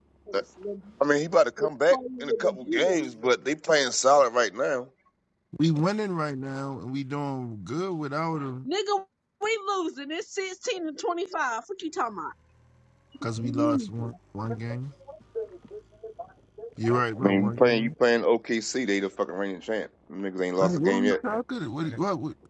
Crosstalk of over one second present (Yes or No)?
Yes